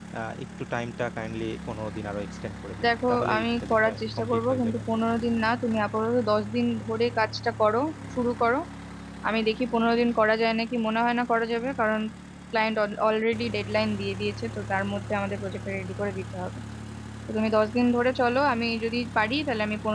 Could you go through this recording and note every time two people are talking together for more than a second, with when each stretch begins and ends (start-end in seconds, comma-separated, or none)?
2.8-4.8